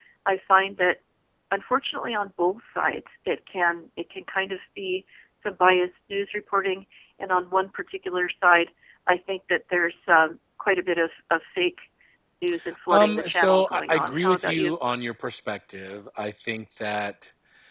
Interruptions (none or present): present